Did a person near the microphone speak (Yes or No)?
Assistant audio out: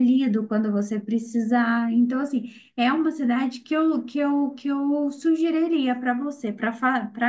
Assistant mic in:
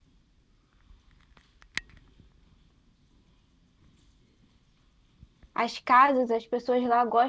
Yes